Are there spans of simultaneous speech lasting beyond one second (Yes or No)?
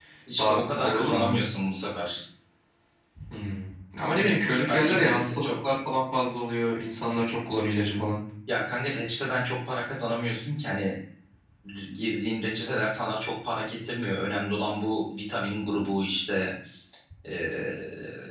Yes